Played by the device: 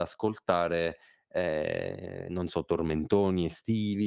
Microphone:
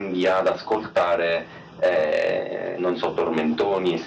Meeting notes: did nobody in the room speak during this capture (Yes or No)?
Yes